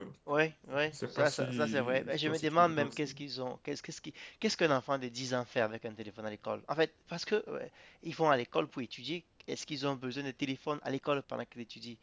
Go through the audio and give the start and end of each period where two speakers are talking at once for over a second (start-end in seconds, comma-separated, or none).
0.9-3.1